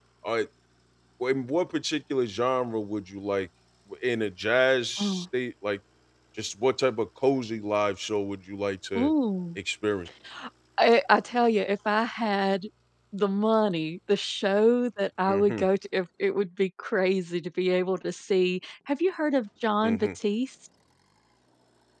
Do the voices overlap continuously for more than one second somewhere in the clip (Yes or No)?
No